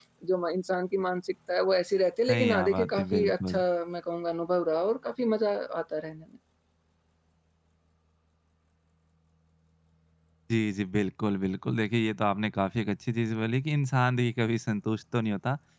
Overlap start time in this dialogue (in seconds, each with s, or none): 2.3 s